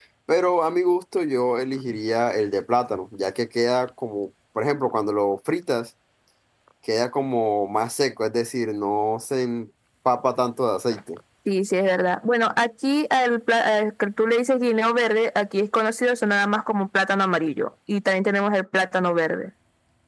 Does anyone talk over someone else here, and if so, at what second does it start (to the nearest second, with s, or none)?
none